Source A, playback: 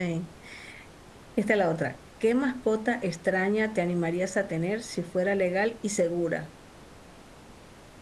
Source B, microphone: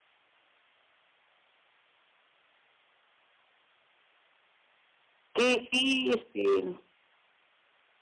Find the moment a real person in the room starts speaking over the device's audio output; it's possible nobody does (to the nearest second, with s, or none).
5 s